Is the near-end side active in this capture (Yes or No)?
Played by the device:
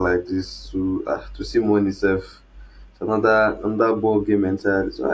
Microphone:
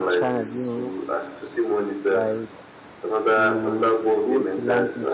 Yes